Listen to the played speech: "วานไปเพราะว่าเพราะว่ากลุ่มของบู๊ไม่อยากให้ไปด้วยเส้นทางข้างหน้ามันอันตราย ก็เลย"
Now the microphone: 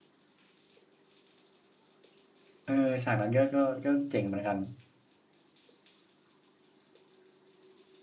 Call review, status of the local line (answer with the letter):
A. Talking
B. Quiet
A